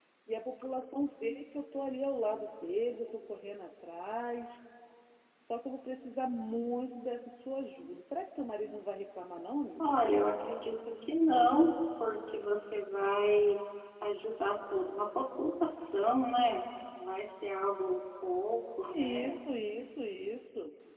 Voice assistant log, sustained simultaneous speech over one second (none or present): none